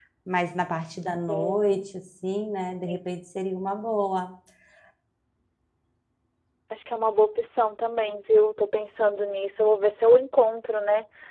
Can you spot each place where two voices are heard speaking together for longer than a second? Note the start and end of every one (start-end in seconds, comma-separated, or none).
none